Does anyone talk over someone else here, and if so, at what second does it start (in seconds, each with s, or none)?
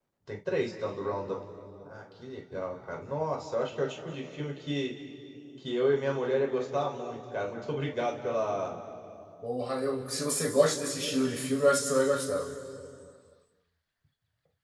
none